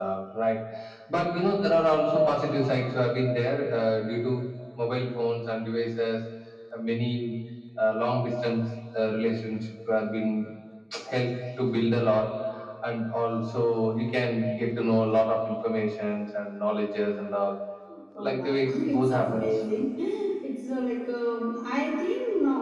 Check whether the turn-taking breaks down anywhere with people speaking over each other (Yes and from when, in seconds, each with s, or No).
Yes, from 18.2 s